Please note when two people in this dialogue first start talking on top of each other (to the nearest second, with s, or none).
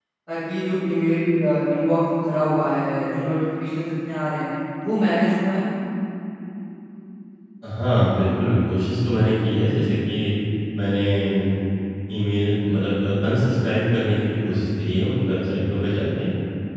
none